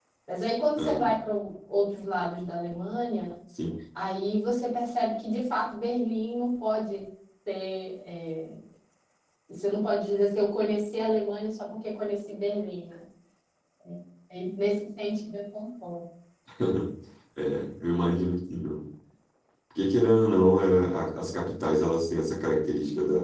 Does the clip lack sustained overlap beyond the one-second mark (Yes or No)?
Yes